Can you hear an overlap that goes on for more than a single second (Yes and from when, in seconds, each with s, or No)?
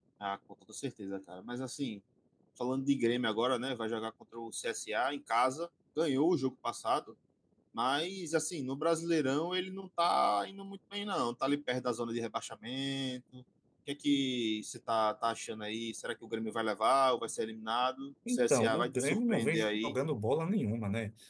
Yes, from 18.3 s